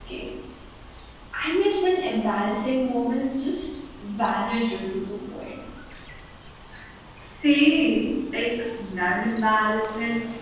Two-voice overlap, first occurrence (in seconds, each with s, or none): none